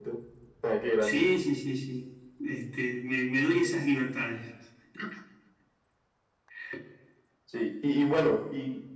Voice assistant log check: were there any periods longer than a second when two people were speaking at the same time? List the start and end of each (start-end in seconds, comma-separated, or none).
none